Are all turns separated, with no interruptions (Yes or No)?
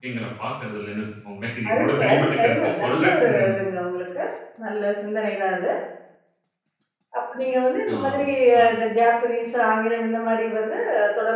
No